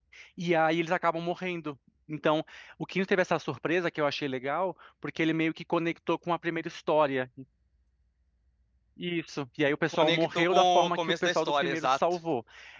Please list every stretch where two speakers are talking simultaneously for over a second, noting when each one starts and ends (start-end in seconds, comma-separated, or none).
9.9-12.0